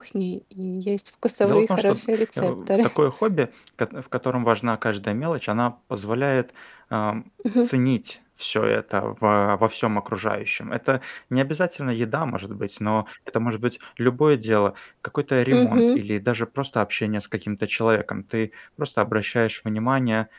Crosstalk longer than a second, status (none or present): present